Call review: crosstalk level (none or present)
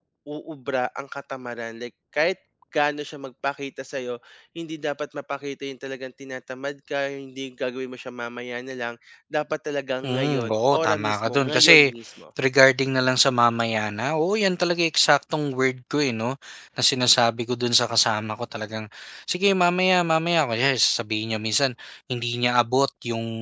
present